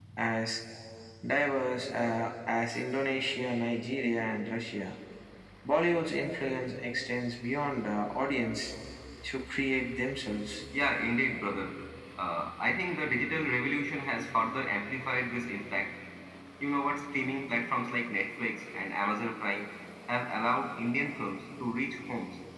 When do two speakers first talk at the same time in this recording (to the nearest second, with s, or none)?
none